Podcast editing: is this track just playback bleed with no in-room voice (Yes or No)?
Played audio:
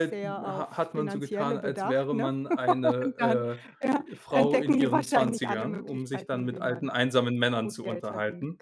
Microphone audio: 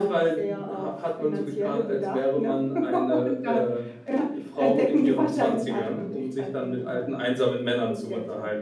Yes